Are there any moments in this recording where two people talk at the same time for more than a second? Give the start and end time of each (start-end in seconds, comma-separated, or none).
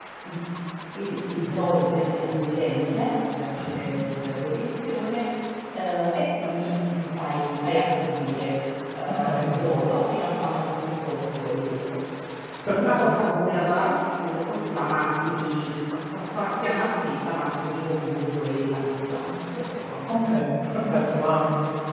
none